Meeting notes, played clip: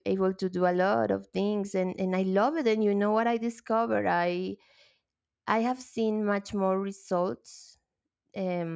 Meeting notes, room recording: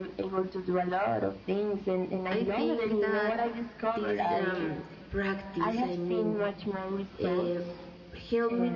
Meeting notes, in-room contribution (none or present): present